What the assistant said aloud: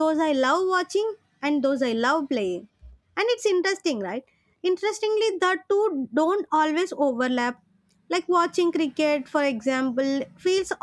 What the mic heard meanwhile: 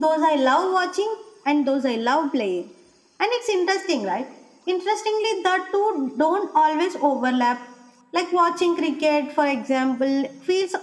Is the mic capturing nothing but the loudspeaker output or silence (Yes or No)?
Yes